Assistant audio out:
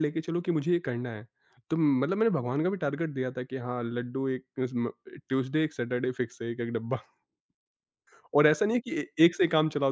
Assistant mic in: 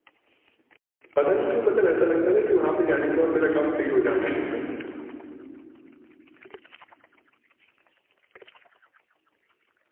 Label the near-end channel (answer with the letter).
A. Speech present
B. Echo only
A